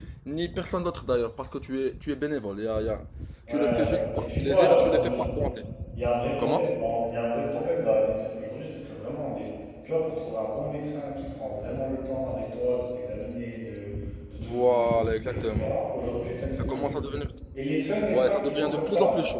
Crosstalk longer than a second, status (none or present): present